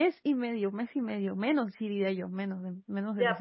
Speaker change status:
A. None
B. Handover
B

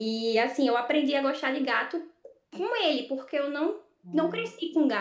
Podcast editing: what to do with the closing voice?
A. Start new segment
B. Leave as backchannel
B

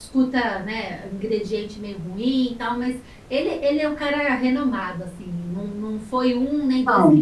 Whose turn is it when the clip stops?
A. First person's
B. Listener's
A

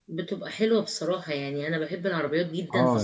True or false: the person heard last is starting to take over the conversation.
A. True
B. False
B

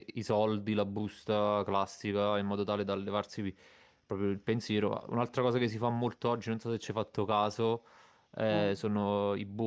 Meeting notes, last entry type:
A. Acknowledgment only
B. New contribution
A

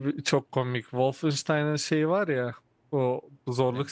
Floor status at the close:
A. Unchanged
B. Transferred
A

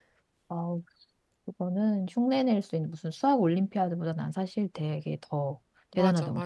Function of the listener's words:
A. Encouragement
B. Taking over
B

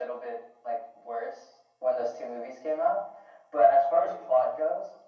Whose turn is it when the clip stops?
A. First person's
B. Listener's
A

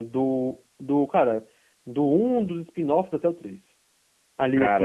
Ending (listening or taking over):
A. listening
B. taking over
A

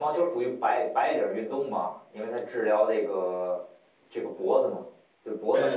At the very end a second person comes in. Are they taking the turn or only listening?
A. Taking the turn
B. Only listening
A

